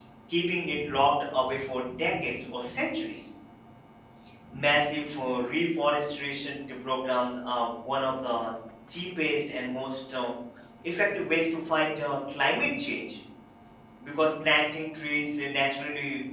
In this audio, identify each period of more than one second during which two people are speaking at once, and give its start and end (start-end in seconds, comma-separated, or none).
none